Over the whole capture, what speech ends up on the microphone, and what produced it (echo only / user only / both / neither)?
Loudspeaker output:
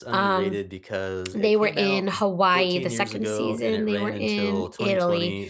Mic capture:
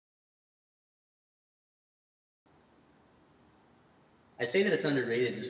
user only